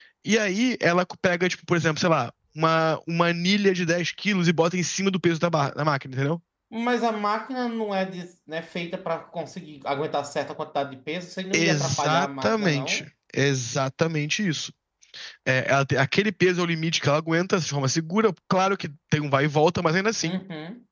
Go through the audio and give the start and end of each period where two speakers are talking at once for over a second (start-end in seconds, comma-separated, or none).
11.5-13.0